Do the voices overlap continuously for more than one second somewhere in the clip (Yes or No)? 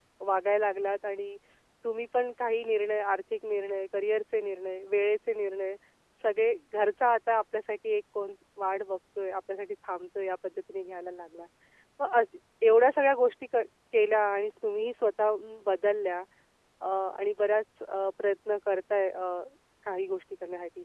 No